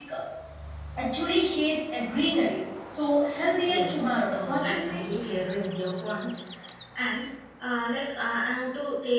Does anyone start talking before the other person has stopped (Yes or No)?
Yes